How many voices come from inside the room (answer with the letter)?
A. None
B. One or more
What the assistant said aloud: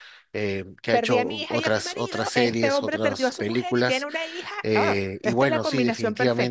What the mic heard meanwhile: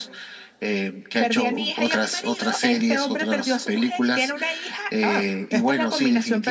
A